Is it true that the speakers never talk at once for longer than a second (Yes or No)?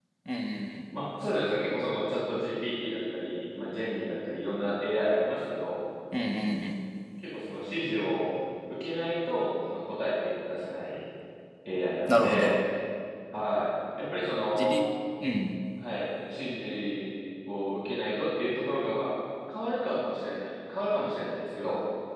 Yes